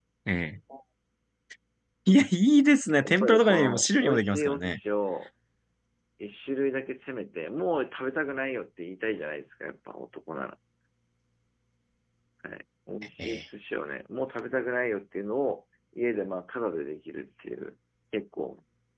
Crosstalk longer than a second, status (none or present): present